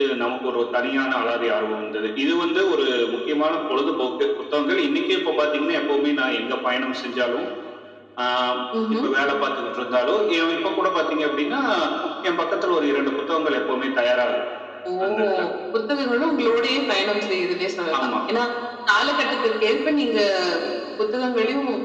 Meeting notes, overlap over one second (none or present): none